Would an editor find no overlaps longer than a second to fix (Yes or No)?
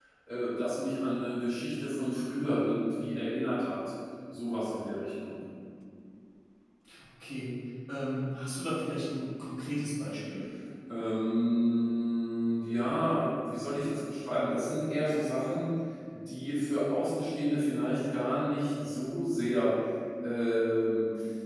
Yes